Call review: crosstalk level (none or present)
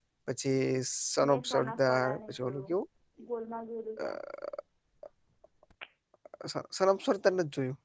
present